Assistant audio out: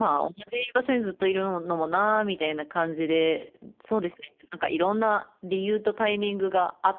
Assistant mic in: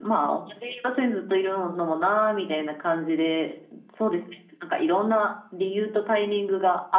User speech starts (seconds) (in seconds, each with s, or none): none